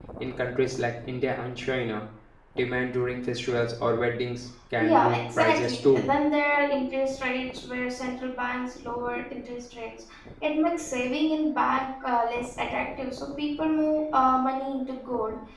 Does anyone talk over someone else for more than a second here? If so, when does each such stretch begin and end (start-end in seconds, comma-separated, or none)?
4.8-6.0